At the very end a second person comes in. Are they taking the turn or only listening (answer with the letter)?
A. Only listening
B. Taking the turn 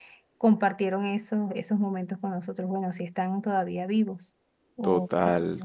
B